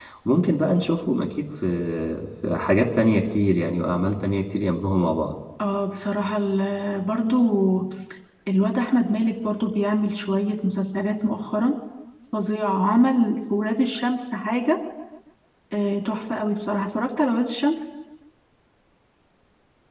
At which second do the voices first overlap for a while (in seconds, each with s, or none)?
none